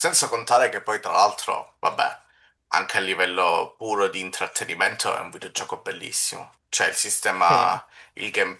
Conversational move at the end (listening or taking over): listening